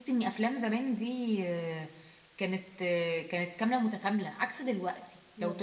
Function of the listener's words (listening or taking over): listening